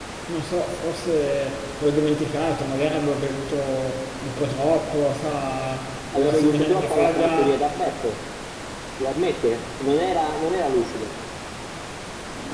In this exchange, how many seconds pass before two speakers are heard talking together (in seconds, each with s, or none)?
6.1 s